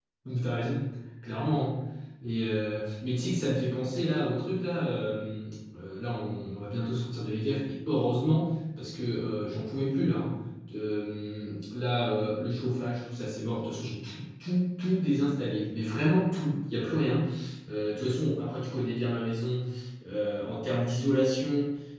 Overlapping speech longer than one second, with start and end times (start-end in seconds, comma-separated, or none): none